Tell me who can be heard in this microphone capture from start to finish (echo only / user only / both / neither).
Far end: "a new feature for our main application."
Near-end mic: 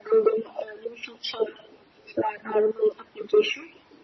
echo only